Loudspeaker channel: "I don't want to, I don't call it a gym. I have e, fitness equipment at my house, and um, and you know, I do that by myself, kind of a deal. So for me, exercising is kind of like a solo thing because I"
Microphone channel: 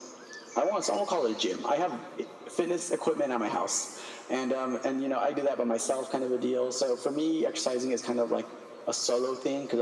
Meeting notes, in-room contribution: none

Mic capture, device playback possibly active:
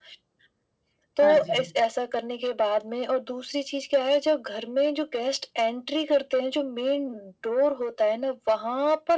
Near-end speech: present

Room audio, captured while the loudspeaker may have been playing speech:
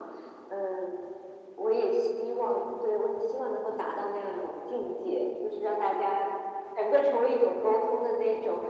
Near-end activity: none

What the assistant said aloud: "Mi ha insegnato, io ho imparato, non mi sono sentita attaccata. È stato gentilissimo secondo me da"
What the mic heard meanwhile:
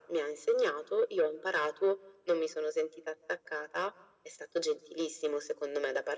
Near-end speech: none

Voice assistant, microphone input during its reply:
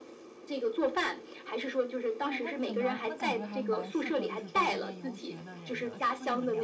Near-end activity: present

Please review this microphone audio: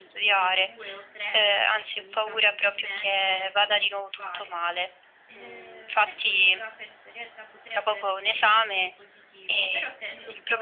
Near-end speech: present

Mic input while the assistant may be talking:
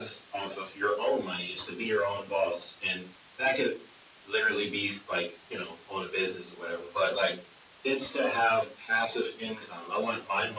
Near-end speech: none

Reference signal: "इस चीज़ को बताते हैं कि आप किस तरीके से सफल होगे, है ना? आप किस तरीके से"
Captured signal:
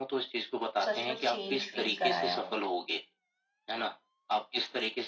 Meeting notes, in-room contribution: present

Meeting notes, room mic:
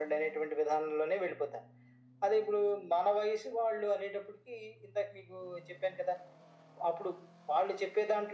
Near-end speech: none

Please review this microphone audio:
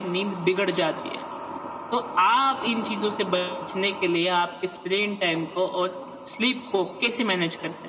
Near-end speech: none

